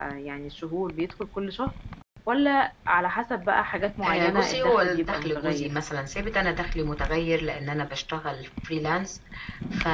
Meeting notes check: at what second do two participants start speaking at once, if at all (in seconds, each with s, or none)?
4.0 s